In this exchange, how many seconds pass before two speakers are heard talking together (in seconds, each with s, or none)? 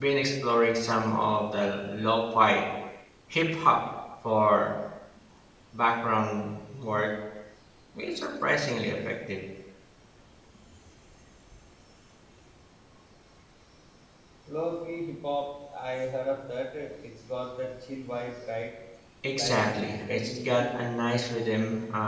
19.4 s